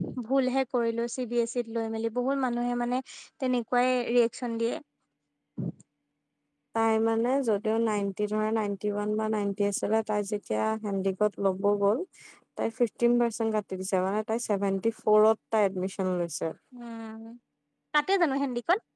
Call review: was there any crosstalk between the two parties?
No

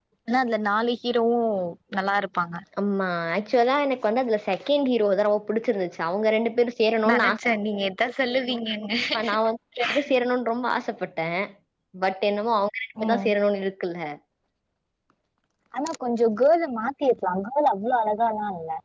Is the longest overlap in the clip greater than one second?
No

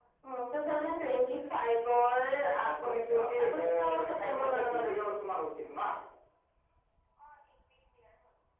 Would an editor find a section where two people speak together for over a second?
Yes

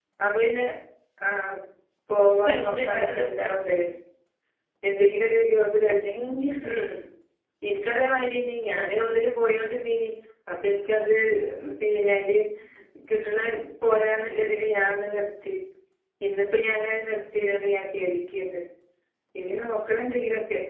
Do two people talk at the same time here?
Yes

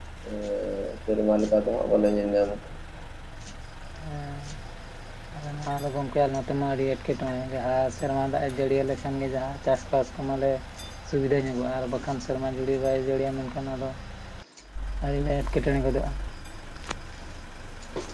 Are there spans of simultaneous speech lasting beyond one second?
No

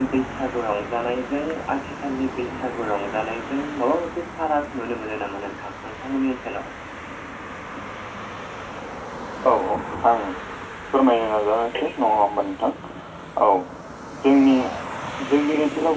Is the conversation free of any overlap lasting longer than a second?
Yes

